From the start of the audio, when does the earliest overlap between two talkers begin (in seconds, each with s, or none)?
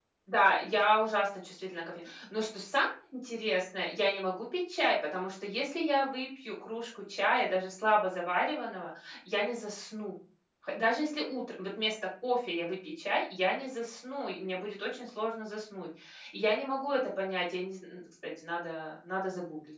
none